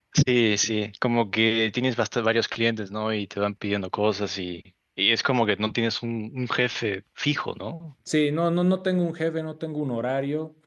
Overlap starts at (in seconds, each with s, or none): none